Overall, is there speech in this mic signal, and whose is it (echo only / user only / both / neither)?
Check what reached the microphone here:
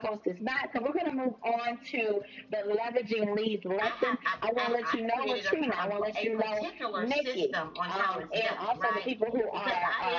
both